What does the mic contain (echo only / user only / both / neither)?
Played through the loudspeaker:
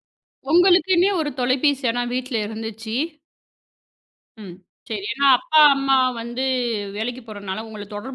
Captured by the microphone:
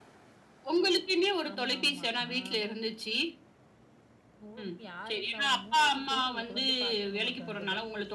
both